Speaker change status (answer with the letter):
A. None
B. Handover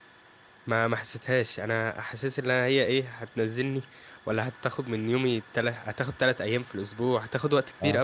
A